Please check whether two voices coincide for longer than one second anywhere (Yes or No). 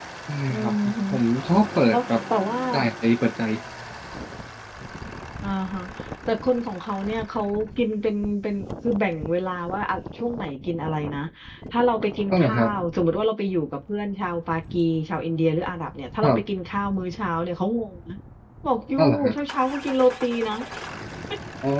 No